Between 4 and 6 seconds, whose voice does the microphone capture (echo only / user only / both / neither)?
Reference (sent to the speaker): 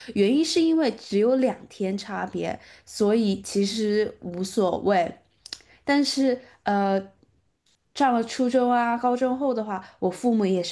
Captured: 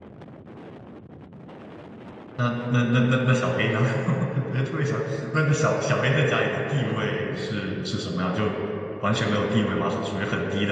user only